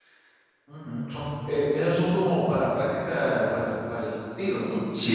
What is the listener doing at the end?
taking over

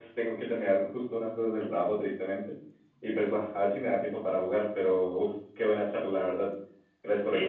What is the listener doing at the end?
taking over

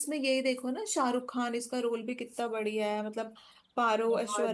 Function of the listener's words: listening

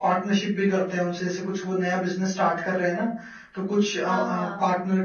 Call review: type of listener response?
listening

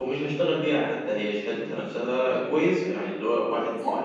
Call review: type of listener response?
listening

